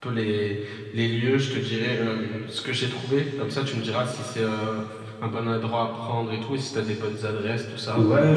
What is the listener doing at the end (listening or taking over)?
taking over